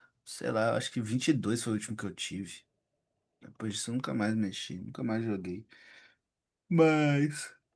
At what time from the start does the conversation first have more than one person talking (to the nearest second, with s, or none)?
none